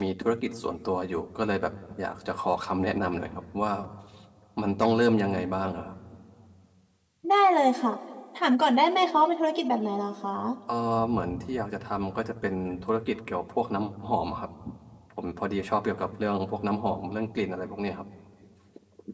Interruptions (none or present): none